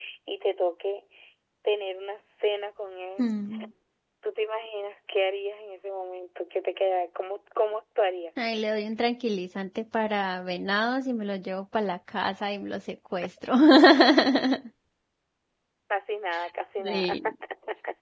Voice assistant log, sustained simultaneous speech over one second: none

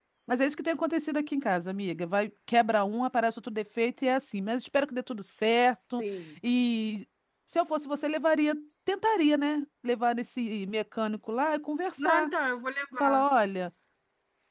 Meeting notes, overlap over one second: none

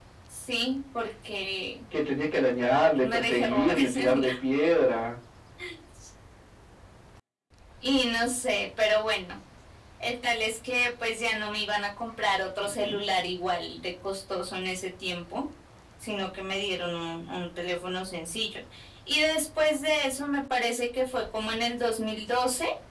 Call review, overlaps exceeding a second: present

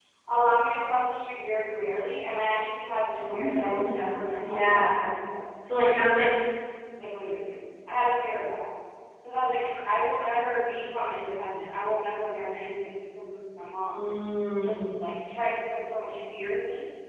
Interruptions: present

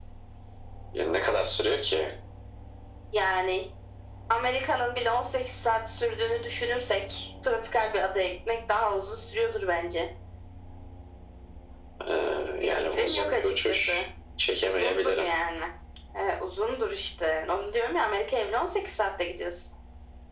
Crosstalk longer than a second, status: present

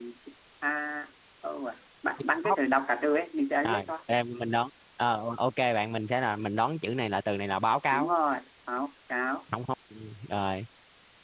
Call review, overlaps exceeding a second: none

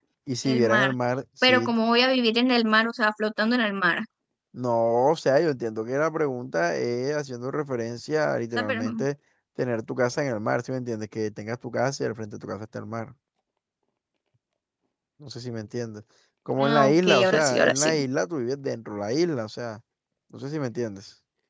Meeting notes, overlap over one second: present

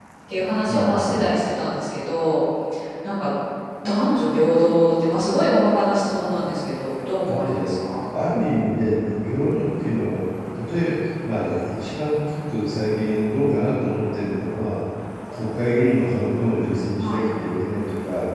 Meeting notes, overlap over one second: none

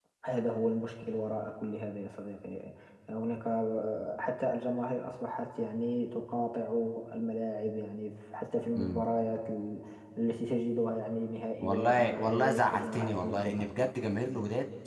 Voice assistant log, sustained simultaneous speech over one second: present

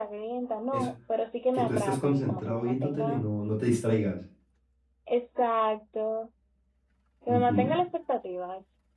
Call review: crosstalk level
present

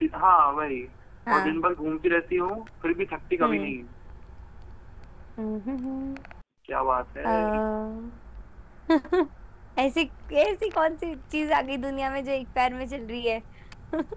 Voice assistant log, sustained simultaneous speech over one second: none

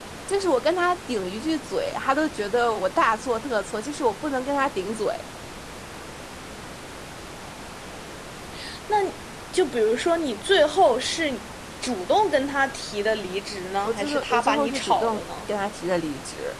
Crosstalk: present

